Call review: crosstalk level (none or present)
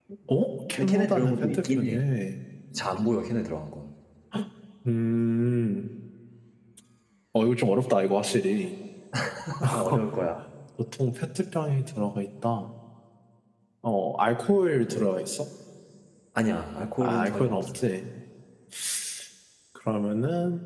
present